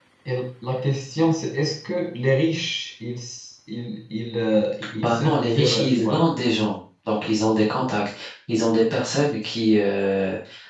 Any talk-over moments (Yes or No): Yes